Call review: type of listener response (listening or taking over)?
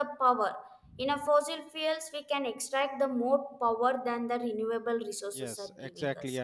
taking over